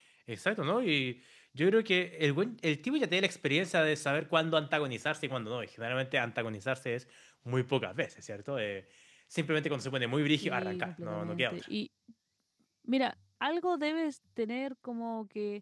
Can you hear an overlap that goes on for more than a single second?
Yes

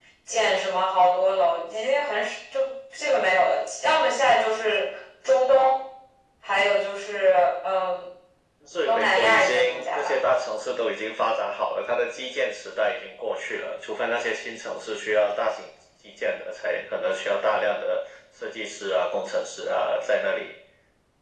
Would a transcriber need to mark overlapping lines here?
Yes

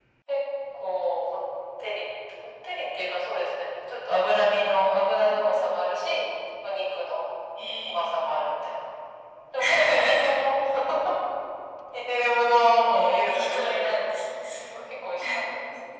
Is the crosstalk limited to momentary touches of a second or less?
No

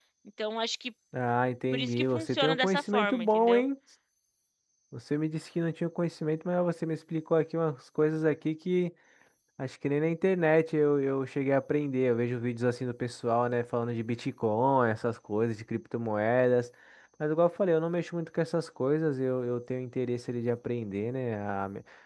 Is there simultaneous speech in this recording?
Yes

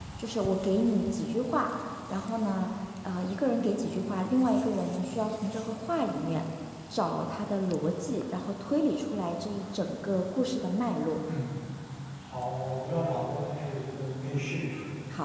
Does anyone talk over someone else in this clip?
No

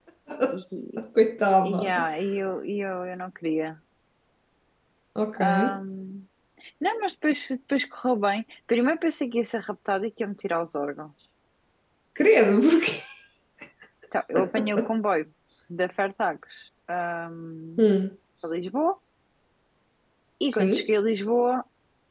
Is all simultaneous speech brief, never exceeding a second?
Yes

